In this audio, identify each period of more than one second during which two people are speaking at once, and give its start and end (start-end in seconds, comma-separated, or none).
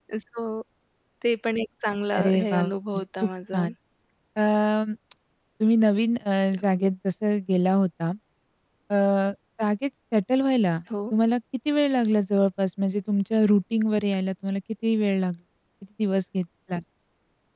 2.2-3.6